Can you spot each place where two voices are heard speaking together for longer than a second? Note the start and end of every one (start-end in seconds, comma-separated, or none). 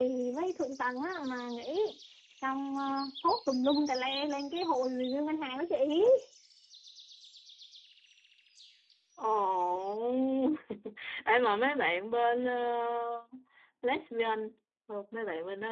none